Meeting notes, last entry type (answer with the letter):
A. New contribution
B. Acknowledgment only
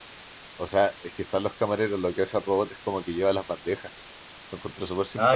A